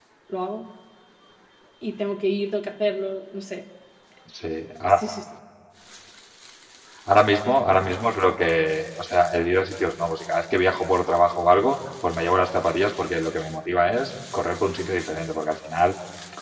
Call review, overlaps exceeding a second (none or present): none